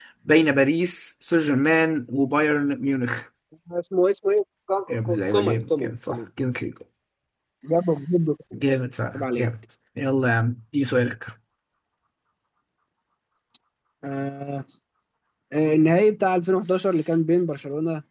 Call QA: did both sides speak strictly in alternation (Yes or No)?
No